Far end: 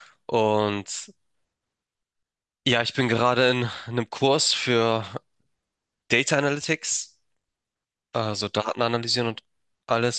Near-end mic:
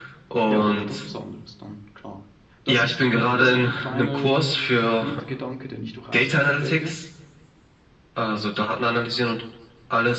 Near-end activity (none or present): present